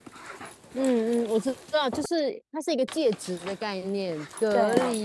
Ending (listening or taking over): listening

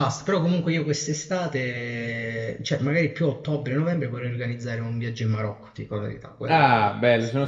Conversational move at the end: taking over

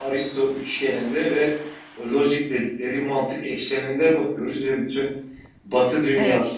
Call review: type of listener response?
listening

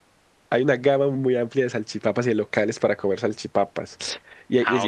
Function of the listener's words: listening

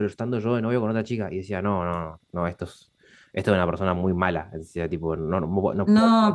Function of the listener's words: taking over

